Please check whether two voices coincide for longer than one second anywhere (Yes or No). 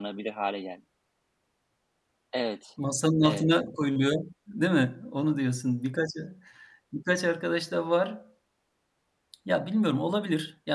No